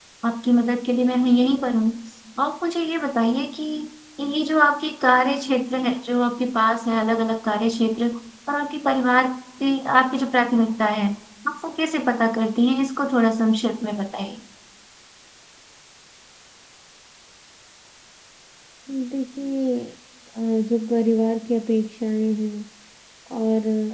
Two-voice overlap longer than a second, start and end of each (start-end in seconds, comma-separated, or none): none